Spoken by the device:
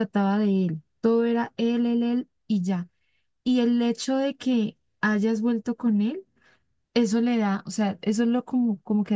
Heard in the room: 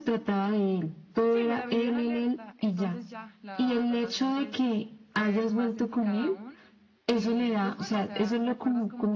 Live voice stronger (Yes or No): No